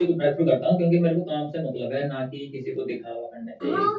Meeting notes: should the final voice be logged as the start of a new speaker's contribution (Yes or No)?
Yes